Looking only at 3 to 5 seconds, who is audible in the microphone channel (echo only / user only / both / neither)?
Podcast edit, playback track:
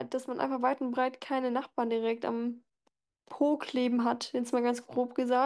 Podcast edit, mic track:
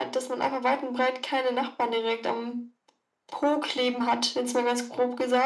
echo only